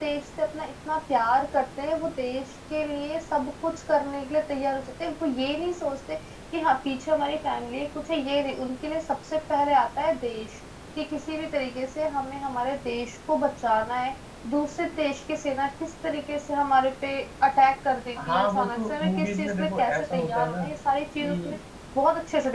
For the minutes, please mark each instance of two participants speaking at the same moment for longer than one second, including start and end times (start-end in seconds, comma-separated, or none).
18.3-20.6